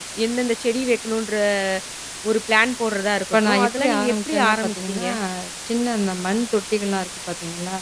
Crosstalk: present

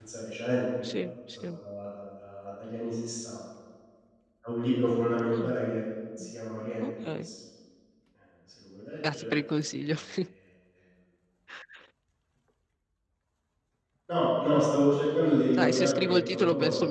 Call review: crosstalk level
present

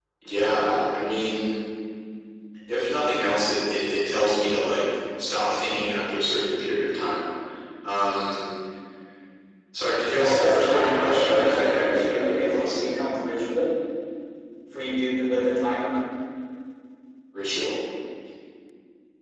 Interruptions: present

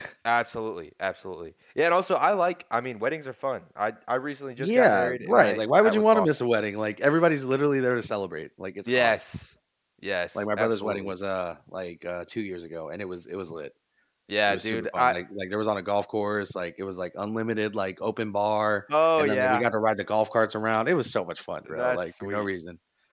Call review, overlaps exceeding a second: present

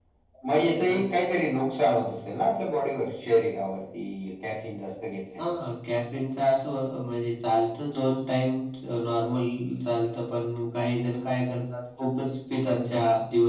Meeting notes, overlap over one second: none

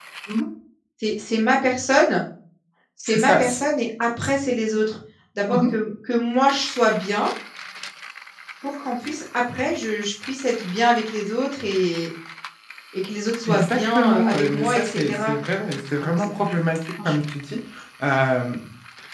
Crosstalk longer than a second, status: present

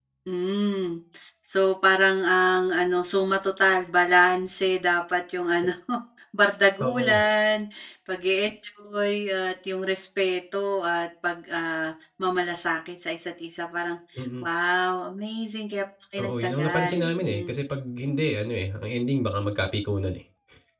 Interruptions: present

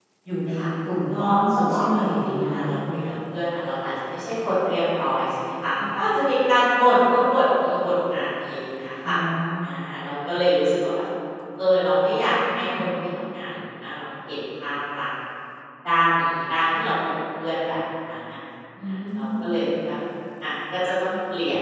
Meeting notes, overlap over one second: present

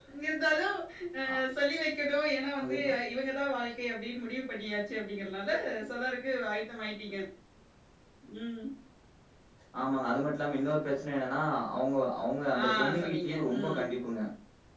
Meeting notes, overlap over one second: present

